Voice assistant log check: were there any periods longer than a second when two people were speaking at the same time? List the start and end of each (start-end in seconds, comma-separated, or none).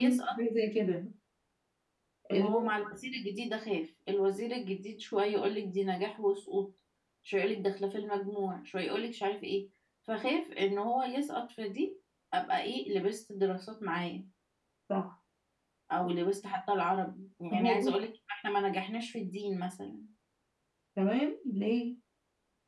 none